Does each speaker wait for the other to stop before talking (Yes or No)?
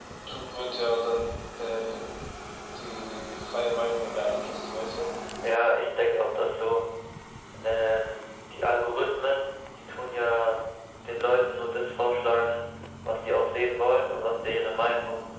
Yes